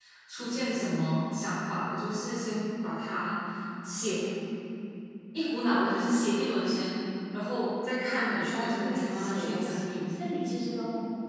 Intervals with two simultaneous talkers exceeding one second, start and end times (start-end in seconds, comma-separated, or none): 8.5-10.0